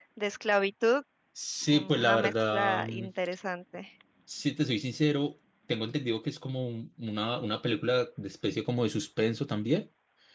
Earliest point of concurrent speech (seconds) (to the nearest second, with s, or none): 2 s